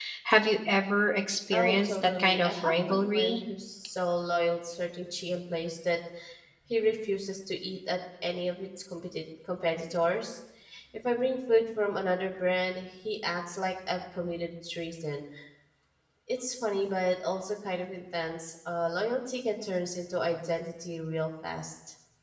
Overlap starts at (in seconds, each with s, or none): 1.5 s